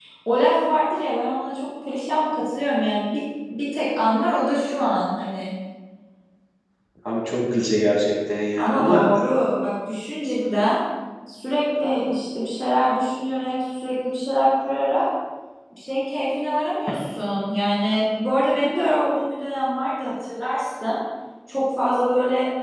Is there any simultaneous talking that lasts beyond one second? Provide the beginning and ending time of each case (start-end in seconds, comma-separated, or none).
none